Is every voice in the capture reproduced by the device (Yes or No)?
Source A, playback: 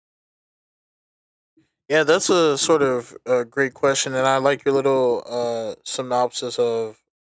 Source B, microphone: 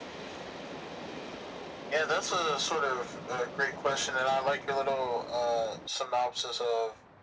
Yes